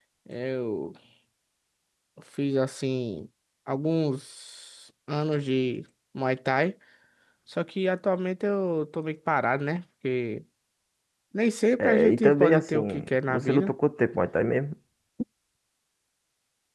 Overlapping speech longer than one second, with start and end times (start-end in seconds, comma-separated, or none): 11.8-13.7